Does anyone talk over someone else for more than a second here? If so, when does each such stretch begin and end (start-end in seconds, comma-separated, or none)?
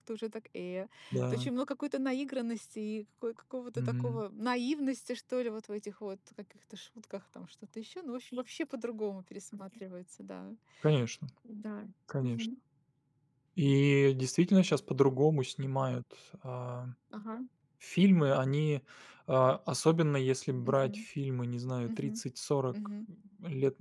none